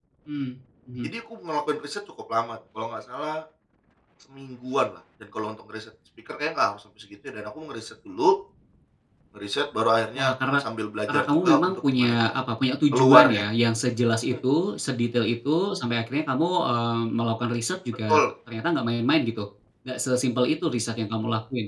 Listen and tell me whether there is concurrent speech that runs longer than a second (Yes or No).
Yes